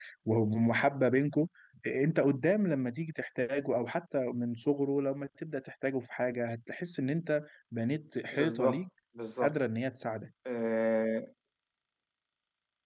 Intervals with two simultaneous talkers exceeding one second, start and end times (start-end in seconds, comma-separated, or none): none